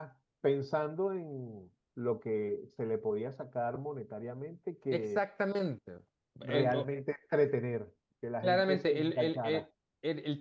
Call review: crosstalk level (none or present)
present